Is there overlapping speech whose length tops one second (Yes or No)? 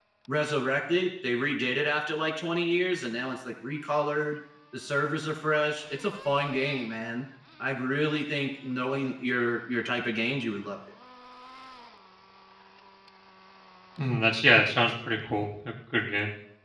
No